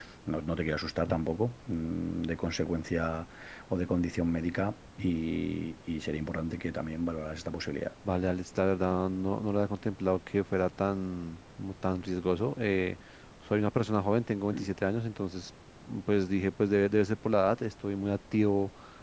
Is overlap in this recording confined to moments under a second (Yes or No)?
Yes